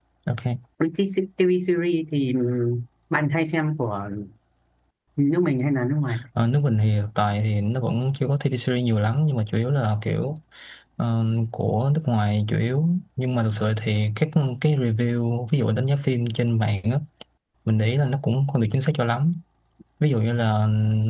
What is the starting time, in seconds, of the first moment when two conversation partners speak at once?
none

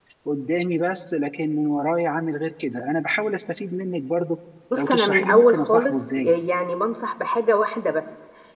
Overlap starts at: 4.7 s

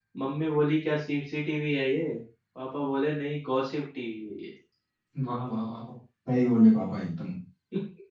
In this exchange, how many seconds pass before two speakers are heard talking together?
none

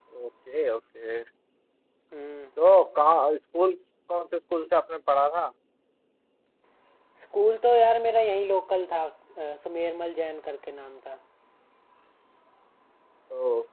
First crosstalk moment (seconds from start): none

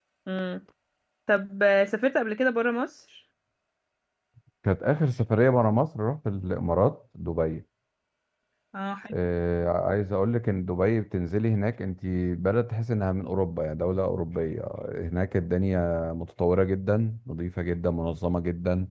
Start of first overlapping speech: none

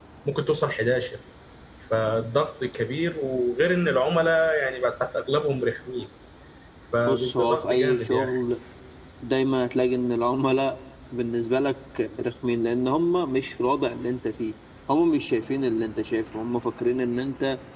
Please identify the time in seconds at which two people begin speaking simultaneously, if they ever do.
7.1 s

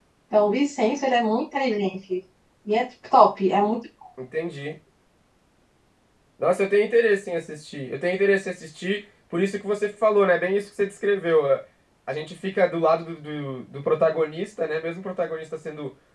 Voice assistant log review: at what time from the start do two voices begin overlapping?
none

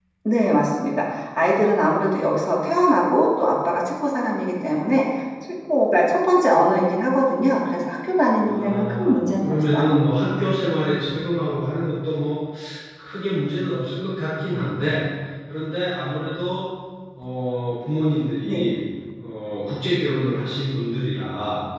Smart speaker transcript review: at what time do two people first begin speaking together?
8.4 s

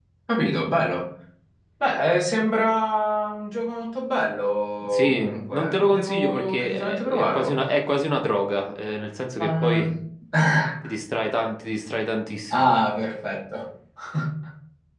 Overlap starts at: 4.9 s

